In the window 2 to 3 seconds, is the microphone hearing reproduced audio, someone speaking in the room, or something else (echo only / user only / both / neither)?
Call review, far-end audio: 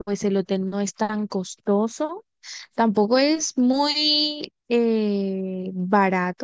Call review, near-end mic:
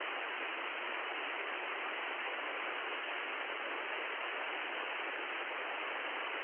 neither